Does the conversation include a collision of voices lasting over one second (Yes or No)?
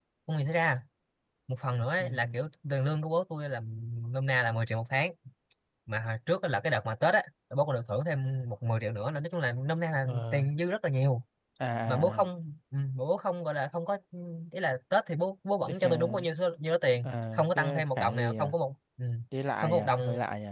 Yes